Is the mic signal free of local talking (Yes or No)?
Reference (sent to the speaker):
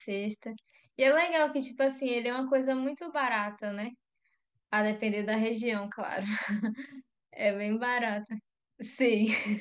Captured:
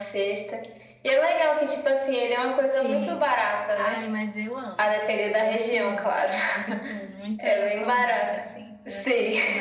No